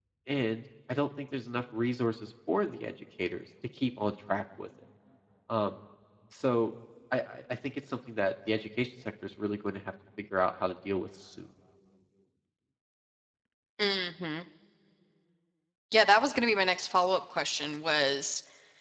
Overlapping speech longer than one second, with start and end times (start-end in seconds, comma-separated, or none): none